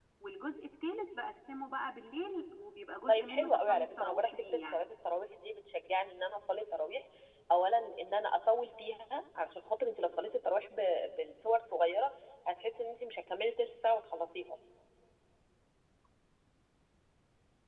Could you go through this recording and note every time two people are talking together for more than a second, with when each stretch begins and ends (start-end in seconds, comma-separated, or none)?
3.1-4.8